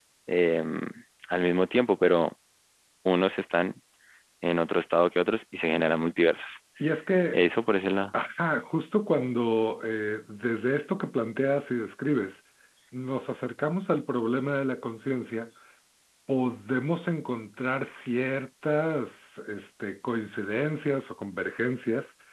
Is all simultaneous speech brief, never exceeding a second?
Yes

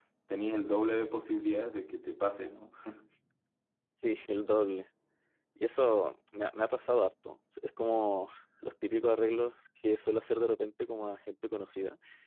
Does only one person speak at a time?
Yes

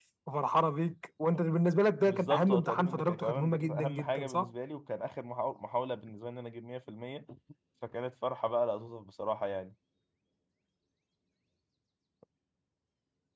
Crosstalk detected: Yes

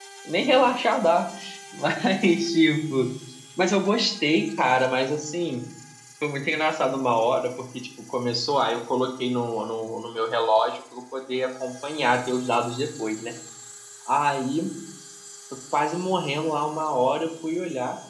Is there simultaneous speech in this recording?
No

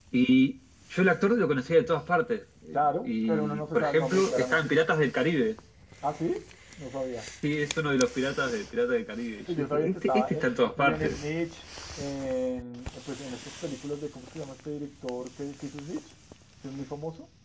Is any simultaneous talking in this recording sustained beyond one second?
Yes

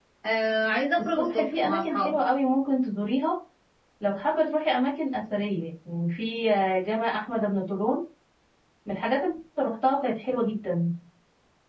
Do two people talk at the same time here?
Yes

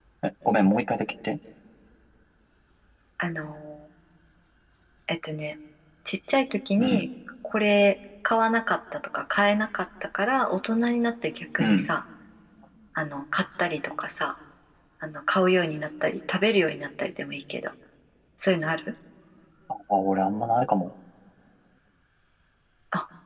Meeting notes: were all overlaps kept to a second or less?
Yes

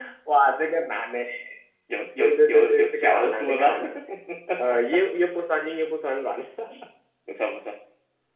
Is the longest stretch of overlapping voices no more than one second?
No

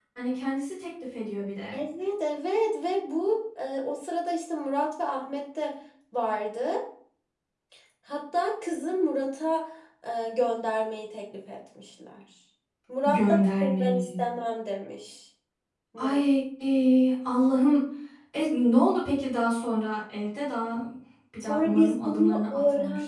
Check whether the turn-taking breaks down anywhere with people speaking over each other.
Yes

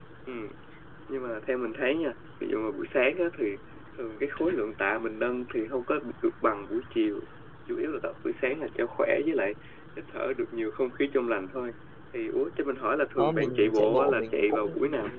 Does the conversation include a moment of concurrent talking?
Yes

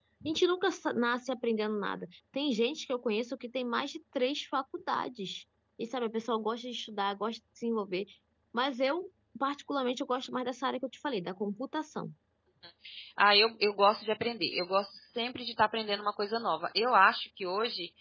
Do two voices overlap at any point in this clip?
No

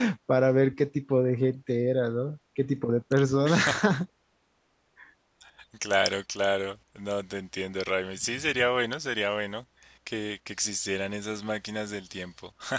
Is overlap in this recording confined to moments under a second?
Yes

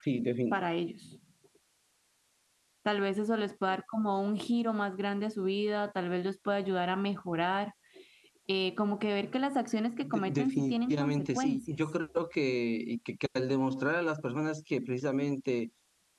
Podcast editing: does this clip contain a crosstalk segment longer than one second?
Yes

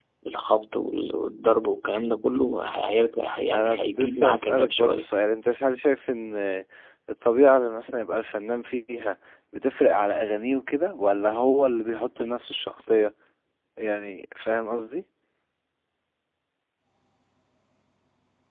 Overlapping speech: Yes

